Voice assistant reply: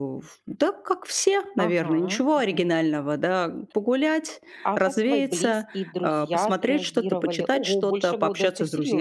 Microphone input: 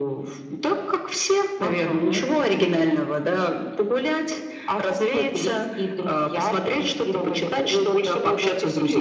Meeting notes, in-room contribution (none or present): none